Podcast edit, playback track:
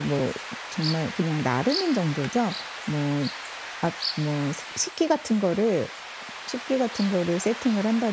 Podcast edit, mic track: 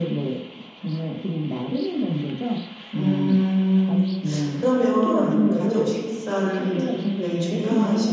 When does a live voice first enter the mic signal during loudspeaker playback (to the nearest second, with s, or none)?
3 s